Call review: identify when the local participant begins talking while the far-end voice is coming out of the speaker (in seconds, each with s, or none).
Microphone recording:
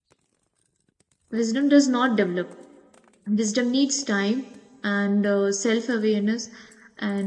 1.3 s